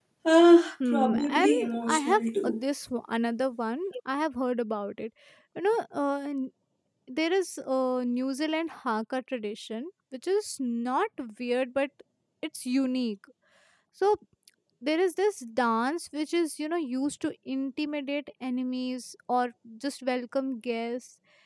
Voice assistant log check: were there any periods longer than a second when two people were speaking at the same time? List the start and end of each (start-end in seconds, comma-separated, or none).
0.9-2.6